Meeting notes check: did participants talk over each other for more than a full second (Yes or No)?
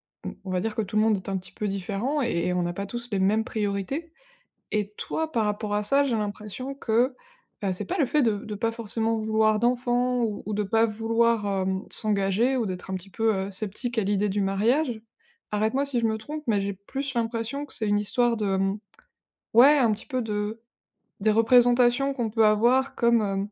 No